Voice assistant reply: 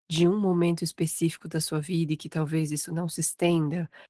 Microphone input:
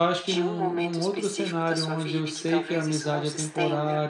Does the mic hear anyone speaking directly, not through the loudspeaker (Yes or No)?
Yes